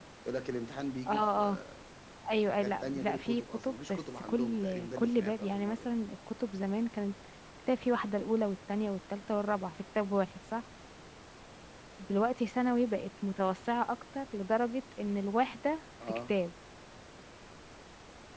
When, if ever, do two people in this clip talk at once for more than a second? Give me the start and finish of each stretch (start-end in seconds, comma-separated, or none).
2.5-5.9